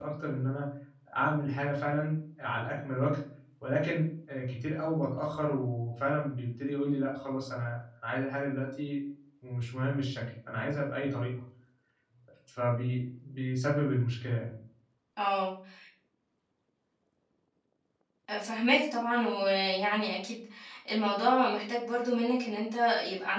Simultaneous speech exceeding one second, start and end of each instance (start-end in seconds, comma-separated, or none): none